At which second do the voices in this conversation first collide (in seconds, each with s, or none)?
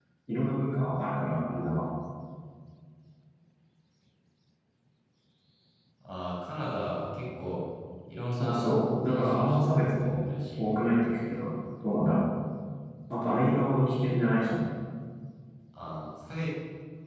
8.3 s